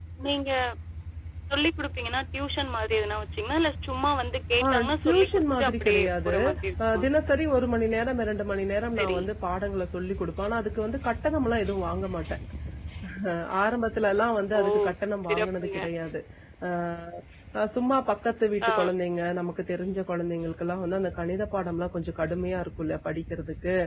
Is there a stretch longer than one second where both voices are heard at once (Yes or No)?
Yes